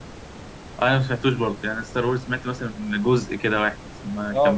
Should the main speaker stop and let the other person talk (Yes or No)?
Yes